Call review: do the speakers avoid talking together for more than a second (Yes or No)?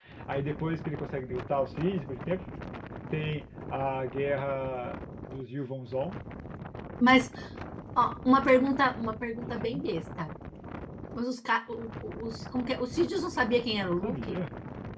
Yes